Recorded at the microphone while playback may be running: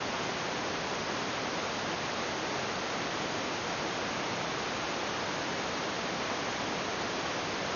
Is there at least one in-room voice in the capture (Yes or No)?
No